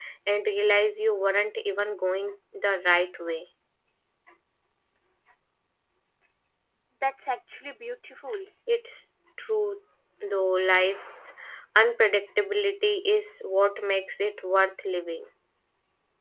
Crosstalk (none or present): none